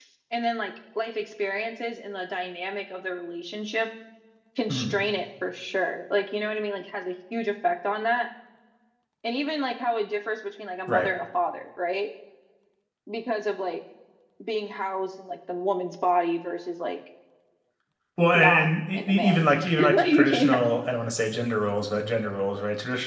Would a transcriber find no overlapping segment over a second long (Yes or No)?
No